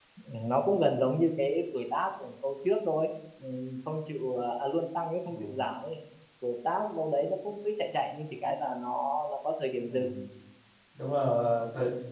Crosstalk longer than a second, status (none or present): none